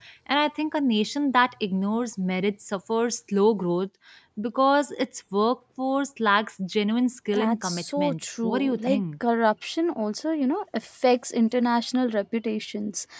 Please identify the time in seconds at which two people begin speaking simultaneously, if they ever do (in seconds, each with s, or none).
7.3 s